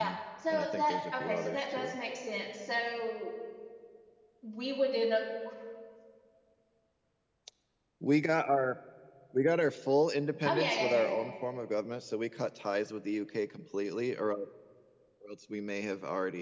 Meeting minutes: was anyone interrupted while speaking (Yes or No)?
Yes